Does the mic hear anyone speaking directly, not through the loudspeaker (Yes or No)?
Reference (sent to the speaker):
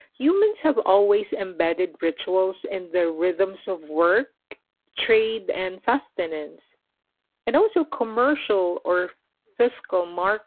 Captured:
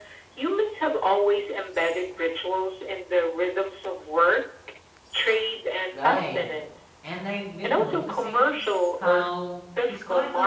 Yes